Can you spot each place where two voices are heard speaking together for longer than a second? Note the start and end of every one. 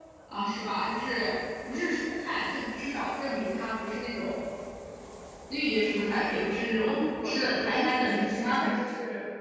6.9-8.7

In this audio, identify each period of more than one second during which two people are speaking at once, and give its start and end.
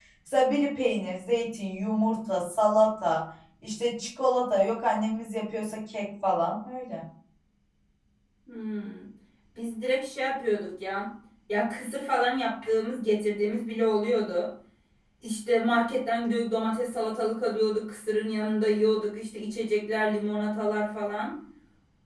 none

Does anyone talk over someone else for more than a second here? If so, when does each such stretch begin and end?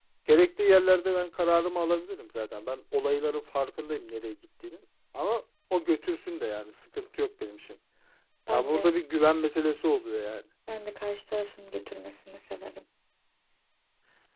none

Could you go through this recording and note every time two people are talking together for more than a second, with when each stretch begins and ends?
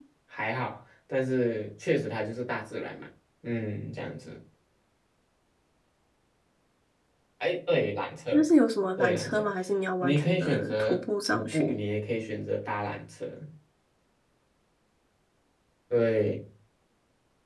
10.0-11.8

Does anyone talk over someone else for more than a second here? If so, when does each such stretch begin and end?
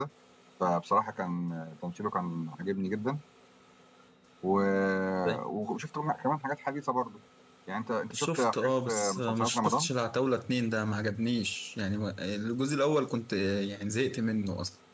8.1-9.9

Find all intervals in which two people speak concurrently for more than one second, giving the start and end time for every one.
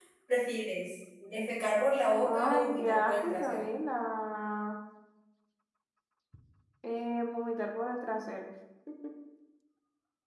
2.2-3.6

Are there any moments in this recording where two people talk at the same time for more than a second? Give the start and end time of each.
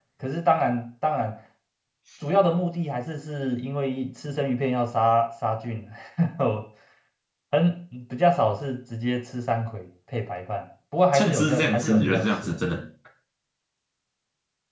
11.1-12.6

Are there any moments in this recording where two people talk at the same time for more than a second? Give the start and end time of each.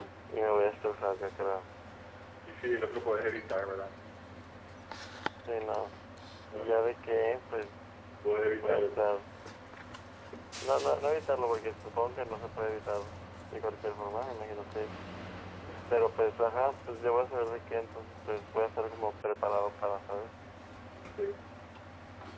none

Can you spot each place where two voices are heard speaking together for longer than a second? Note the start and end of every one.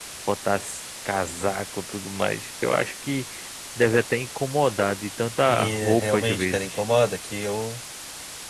5.5-6.8

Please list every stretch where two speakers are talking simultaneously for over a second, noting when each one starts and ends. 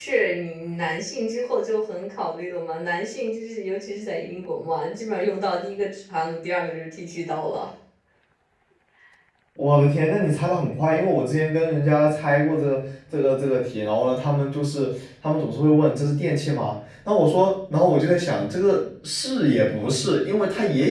none

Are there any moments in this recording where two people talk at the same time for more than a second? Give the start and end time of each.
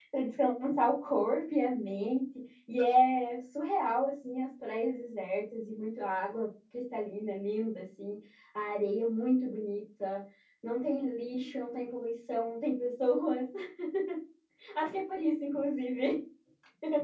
none

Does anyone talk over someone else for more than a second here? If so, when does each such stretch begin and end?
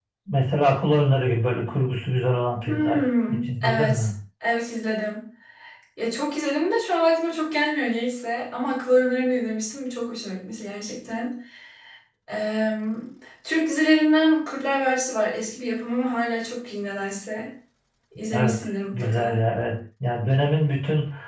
2.6-4.1

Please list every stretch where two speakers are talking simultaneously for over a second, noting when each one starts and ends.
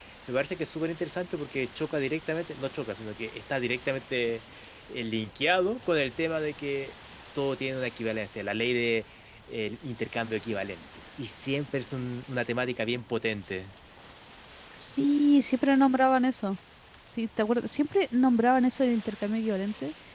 none

